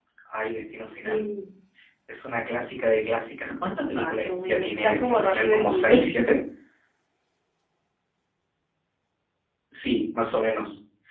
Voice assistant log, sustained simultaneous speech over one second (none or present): present